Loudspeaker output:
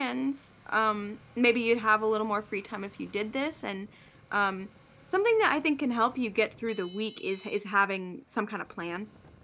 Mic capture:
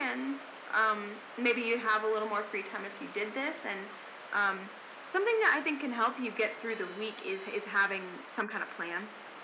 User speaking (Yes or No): No